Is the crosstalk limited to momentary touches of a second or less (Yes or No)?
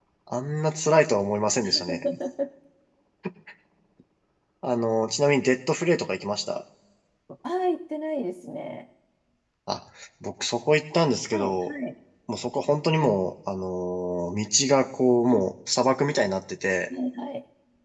Yes